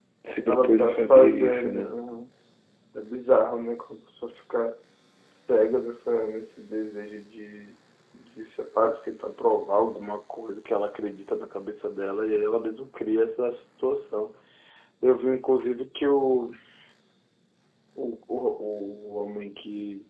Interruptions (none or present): present